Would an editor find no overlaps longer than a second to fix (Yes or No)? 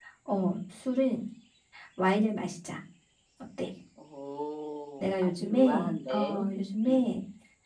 No